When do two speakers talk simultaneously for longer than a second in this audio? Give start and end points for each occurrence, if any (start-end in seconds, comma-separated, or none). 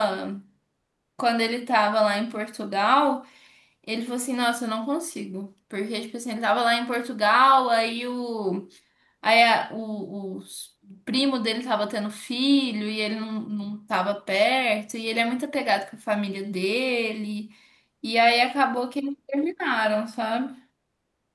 none